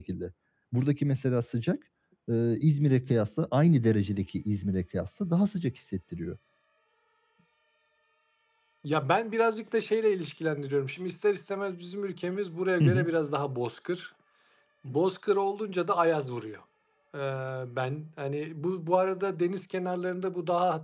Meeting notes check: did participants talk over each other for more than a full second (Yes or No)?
No